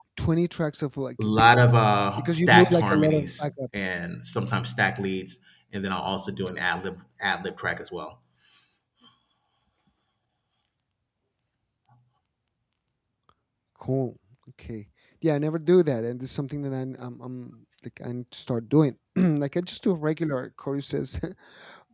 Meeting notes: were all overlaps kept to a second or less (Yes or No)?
No